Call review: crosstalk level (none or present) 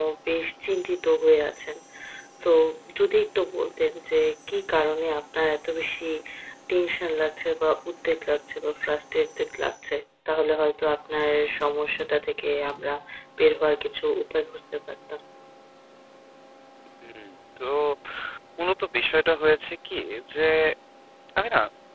none